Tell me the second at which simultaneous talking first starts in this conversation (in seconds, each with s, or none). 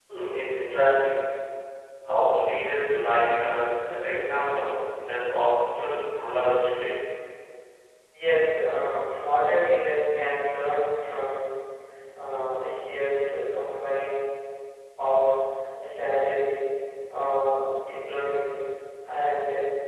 none